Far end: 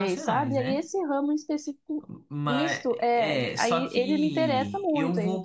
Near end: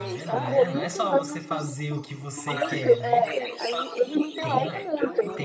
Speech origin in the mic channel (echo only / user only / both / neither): both